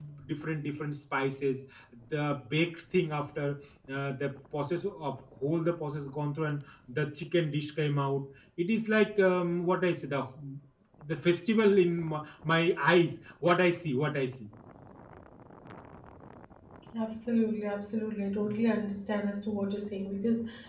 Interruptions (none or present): none